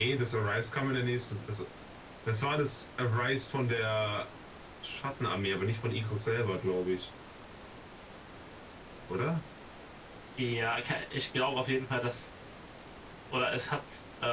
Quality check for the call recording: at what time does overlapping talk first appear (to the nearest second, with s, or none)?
none